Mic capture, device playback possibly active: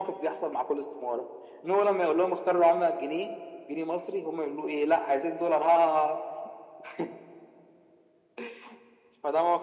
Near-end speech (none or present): none